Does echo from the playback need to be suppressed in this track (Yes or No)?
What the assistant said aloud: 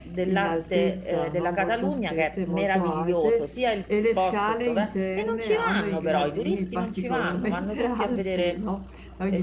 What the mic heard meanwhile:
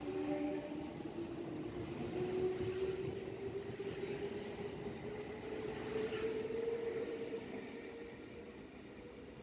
No